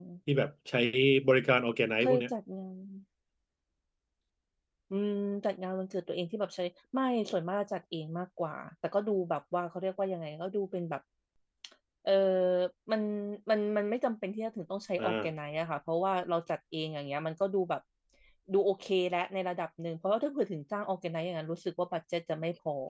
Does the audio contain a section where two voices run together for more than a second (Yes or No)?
No